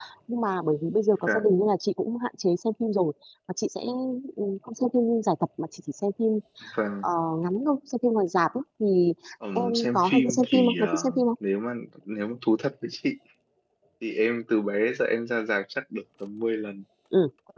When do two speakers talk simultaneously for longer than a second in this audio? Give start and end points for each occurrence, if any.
9.6-11.2

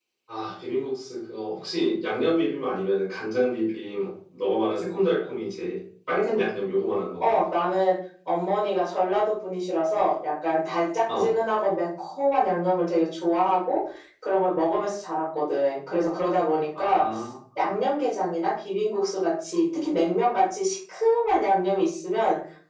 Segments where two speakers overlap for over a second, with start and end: none

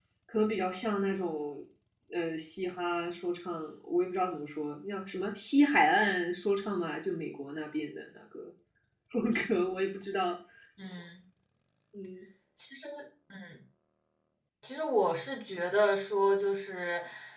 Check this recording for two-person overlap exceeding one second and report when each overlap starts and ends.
none

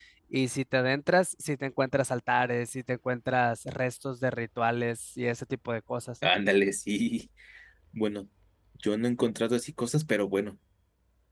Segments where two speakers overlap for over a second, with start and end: none

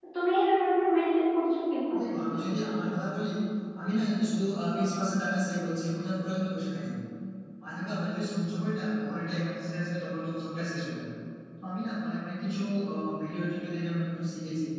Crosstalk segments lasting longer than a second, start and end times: none

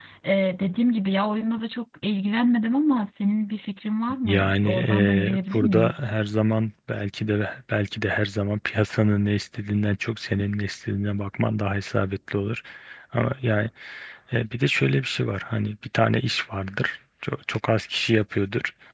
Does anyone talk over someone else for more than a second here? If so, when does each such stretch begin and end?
4.2-6.0

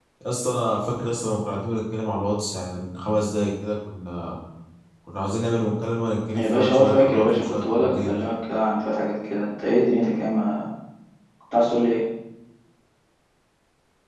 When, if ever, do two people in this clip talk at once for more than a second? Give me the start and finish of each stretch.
6.3-8.1

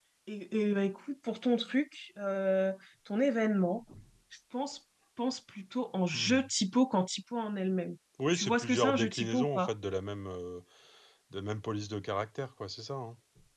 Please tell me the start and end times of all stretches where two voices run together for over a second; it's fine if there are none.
8.3-9.7

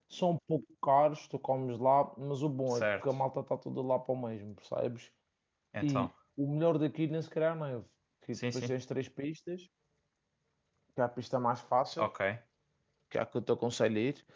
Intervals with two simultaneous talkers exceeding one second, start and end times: none

